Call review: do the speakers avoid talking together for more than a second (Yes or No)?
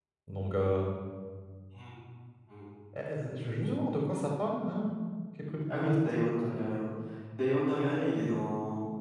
Yes